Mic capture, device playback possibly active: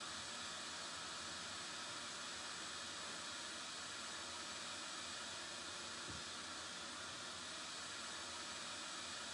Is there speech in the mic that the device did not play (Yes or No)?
No